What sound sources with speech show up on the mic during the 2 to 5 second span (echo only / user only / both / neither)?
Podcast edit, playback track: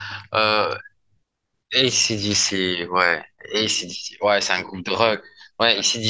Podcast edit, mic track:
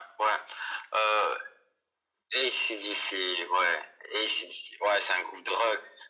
echo only